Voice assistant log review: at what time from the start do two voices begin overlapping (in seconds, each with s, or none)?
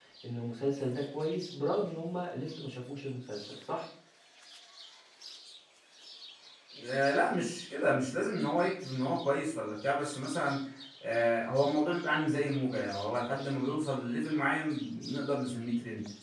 none